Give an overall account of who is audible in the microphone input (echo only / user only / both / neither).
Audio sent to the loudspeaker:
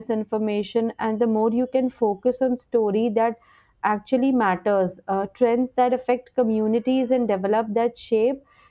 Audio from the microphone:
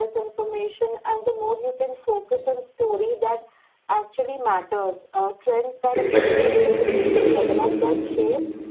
both